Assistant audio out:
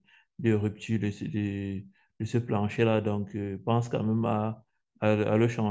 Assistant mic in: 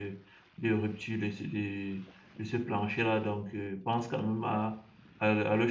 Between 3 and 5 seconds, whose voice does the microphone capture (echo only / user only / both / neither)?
echo only